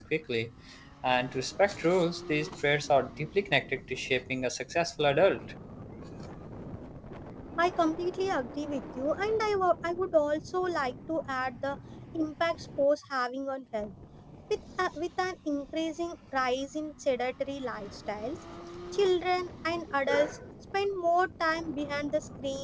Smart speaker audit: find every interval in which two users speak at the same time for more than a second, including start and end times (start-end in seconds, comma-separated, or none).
none